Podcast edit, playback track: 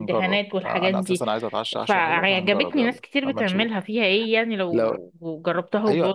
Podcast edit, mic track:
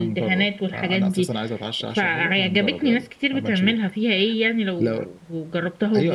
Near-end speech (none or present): none